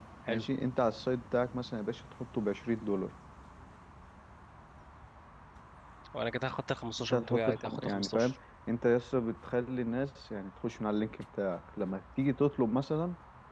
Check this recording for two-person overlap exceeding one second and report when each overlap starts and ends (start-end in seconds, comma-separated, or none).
7.0-8.3